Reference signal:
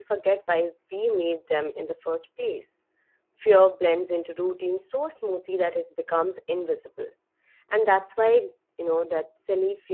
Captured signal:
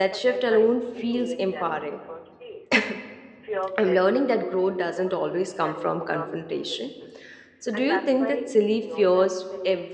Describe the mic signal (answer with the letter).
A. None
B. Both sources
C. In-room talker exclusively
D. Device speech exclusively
B